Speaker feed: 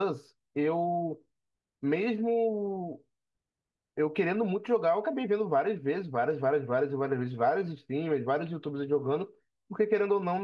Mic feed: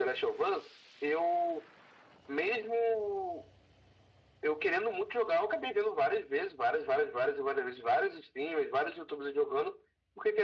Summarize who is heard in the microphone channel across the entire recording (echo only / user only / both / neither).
echo only